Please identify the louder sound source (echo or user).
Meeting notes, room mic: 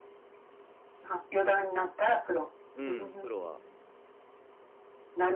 echo